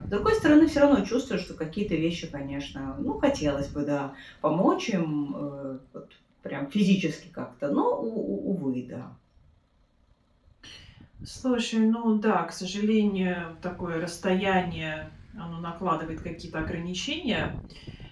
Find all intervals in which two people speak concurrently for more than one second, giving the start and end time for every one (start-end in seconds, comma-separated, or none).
none